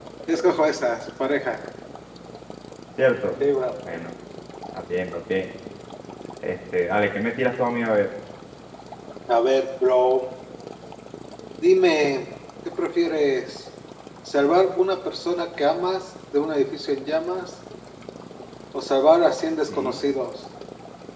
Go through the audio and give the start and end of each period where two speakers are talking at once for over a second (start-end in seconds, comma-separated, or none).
none